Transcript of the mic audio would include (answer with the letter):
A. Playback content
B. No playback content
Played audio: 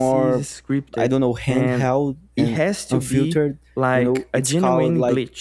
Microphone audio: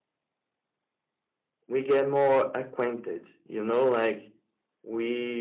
B